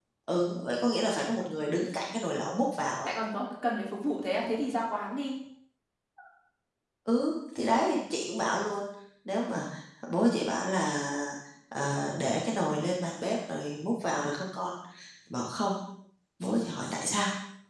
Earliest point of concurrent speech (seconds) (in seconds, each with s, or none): none